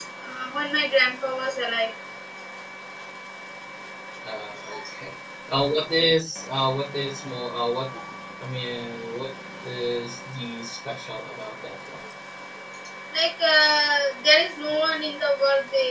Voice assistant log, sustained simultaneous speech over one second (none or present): none